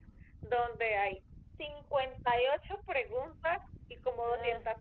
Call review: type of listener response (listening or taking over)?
listening